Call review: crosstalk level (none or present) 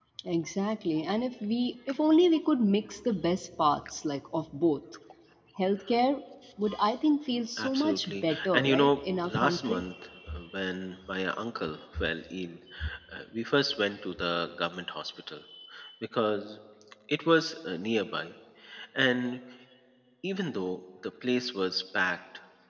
present